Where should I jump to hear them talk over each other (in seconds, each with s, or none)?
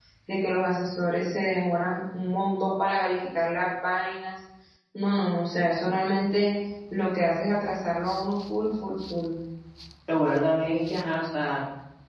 none